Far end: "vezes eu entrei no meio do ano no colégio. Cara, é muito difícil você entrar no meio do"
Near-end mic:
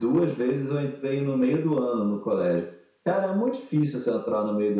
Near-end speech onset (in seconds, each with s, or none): none